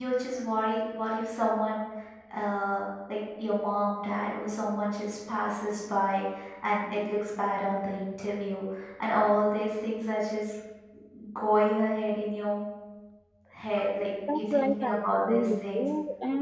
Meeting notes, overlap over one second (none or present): present